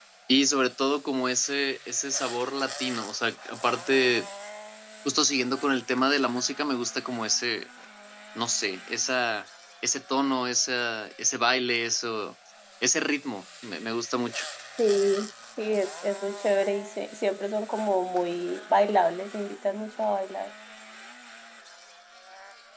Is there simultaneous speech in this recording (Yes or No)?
No